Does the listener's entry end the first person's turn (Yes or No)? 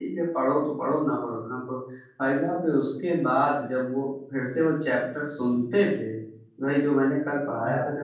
No